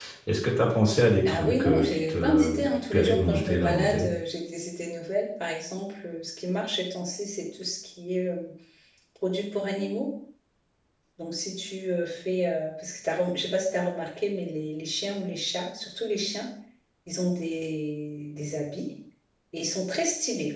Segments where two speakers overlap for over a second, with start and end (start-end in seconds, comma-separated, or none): 1.3-4.1